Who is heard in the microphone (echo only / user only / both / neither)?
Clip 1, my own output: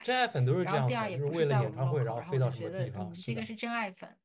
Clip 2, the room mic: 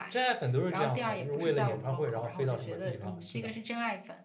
echo only